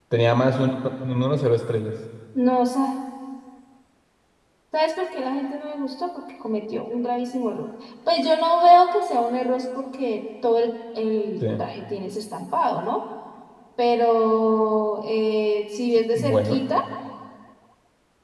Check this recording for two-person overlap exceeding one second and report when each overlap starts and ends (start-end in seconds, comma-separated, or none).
none